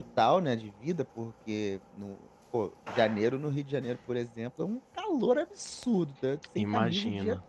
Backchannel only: Yes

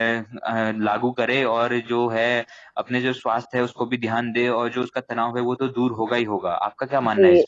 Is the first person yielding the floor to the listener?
Yes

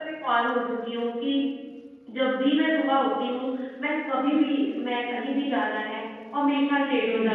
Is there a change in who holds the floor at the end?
No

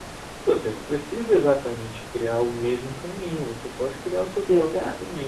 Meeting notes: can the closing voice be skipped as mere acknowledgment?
Yes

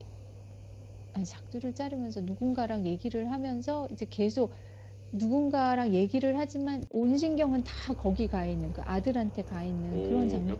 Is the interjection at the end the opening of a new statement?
Yes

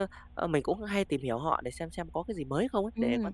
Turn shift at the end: Yes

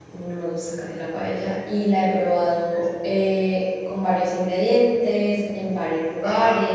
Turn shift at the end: No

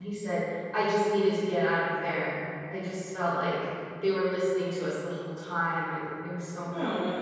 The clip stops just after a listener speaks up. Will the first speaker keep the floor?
No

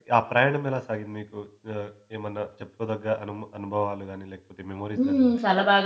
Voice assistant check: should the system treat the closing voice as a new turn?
Yes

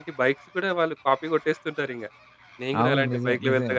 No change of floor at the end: No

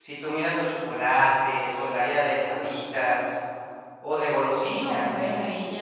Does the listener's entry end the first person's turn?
Yes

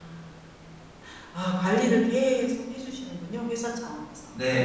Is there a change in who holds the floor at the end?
Yes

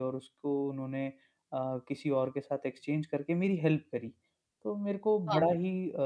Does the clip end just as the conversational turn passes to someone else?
No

